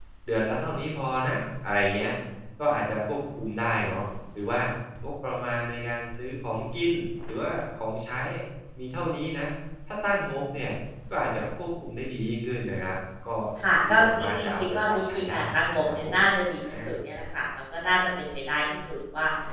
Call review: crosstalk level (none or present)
present